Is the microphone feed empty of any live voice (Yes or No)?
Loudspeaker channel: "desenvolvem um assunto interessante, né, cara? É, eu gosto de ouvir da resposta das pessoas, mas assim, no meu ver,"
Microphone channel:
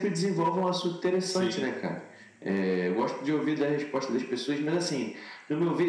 No